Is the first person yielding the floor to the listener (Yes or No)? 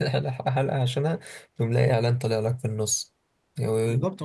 Yes